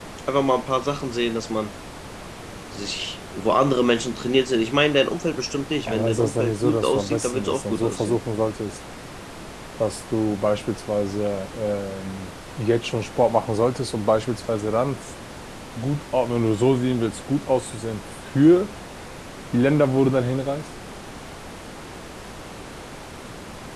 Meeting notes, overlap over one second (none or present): present